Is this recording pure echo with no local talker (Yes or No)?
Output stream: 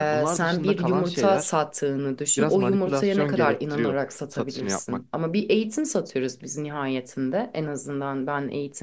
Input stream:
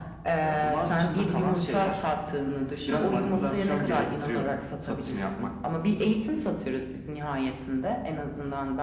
Yes